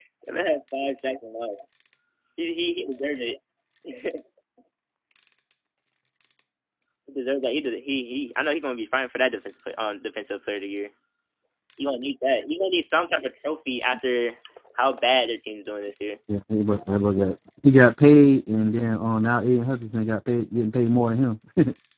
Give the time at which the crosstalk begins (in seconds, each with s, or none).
none